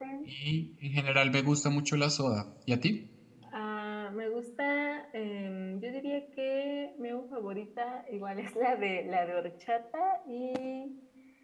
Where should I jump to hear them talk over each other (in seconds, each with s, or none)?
none